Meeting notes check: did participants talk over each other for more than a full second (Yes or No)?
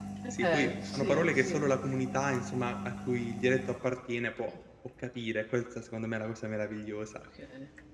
Yes